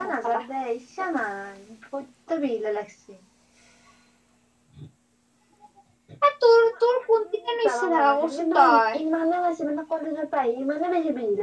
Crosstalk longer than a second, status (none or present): present